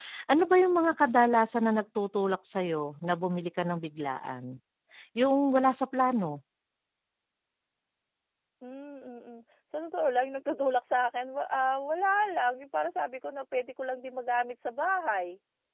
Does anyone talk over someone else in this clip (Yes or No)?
No